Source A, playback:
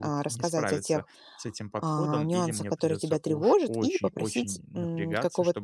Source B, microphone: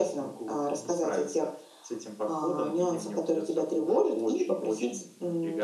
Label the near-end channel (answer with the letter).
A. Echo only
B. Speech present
A